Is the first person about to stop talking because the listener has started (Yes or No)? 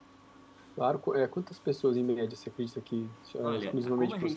Yes